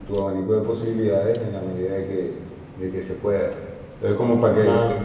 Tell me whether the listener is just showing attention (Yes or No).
Yes